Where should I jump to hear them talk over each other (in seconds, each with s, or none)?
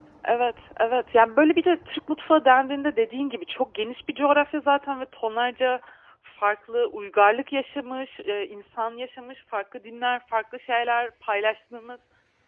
none